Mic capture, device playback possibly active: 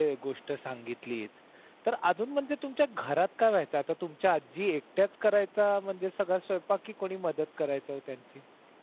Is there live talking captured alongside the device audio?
Yes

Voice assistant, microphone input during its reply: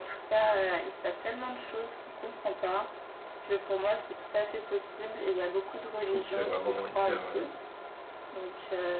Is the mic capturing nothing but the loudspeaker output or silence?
No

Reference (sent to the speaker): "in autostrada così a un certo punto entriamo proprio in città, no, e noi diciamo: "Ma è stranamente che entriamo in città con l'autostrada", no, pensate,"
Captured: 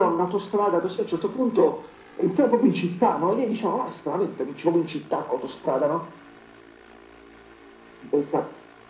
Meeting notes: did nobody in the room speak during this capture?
Yes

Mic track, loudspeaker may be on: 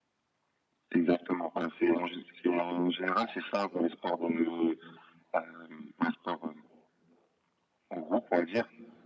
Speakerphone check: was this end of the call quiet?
Yes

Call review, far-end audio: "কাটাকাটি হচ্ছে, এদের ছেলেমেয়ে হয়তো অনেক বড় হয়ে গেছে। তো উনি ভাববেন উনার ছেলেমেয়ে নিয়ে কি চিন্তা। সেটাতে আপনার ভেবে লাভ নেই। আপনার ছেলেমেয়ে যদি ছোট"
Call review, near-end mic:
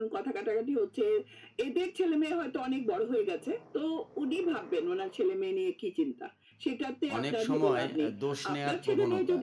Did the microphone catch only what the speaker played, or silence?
No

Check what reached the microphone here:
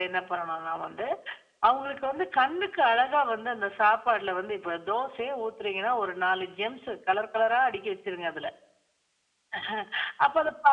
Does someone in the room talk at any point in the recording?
No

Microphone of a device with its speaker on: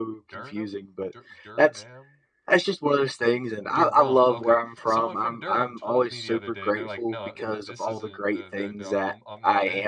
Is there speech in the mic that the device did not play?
Yes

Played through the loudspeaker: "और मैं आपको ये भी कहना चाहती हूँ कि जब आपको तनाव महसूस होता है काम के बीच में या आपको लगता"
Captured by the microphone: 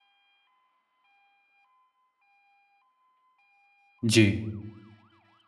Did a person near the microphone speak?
Yes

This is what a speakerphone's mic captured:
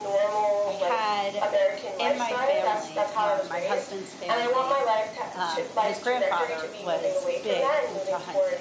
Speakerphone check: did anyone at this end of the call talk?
Yes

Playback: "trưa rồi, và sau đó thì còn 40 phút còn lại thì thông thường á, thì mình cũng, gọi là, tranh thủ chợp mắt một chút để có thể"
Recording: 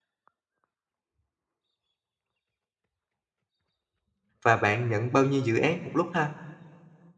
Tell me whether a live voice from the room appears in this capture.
Yes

